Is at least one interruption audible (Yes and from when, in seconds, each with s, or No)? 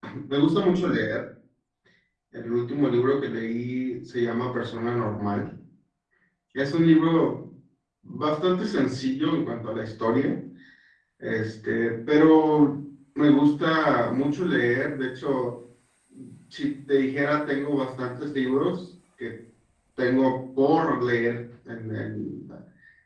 No